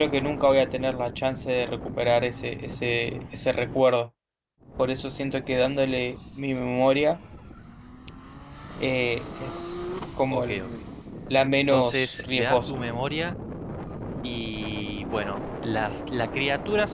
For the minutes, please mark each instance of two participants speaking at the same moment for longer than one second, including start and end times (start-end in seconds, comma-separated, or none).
11.6-12.8